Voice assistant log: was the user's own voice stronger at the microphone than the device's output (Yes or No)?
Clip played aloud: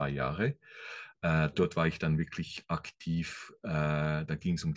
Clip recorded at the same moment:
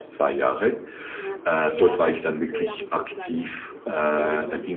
No